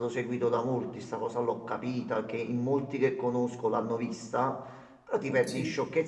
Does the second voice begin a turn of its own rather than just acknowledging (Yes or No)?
No